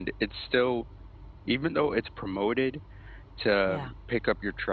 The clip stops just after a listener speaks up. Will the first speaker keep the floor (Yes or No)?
Yes